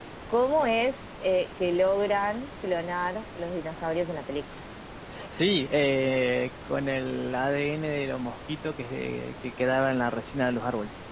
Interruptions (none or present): none